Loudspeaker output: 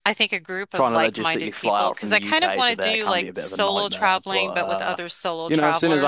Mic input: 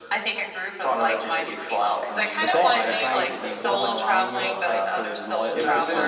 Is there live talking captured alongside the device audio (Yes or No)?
Yes